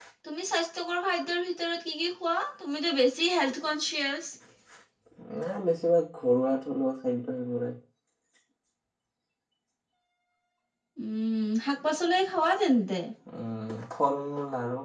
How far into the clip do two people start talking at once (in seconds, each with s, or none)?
none